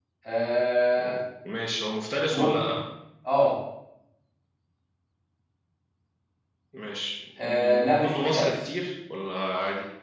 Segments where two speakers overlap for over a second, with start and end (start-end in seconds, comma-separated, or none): 7.4-8.7